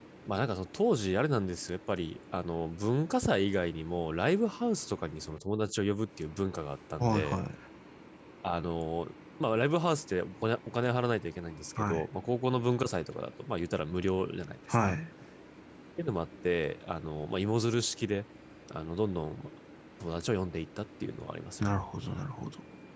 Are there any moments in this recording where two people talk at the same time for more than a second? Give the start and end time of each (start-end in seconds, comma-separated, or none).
none